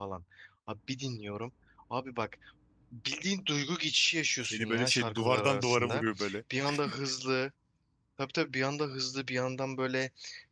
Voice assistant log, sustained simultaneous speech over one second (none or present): present